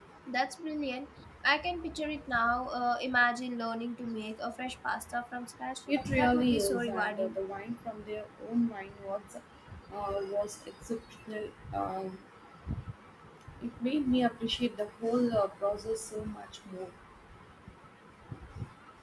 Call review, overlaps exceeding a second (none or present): present